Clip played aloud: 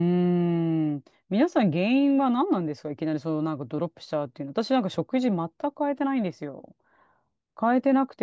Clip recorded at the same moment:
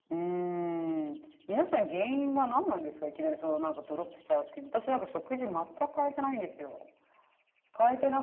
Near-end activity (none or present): none